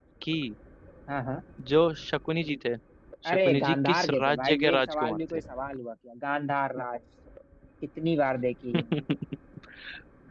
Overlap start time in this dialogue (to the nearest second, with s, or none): 3 s